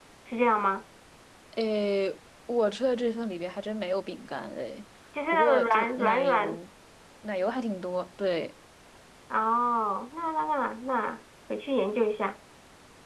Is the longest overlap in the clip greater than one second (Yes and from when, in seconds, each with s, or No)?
Yes, from 5.3 s